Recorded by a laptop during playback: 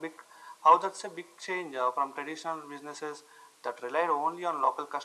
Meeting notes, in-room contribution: none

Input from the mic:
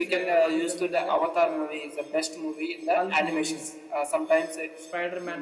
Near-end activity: present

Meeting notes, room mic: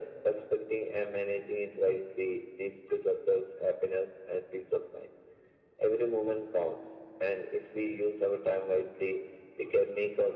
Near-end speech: none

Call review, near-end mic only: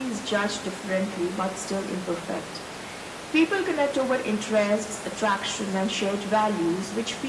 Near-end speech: none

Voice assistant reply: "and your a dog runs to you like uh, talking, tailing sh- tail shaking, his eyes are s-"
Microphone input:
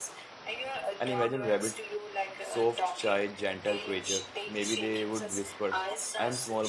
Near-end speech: present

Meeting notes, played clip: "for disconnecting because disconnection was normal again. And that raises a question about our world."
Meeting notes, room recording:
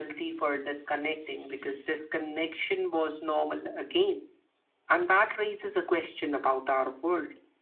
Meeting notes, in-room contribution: none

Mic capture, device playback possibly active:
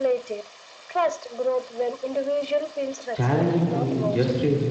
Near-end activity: present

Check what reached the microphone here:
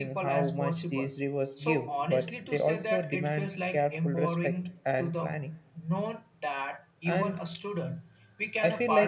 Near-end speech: present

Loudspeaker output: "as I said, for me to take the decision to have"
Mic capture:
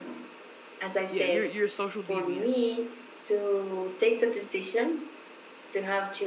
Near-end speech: present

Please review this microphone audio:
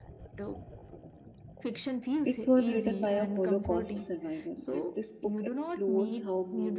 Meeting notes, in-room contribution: present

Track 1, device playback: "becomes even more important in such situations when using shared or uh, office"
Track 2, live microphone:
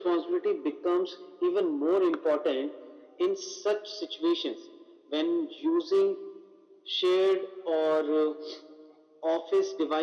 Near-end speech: none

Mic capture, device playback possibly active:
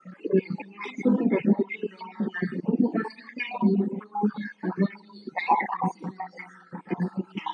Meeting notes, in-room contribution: none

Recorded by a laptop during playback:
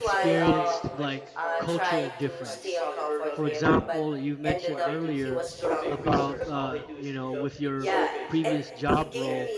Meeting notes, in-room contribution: present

